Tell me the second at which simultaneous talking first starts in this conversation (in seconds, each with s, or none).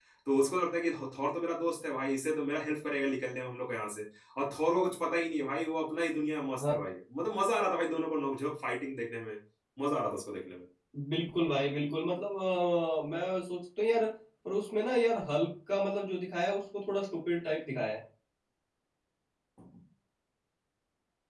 none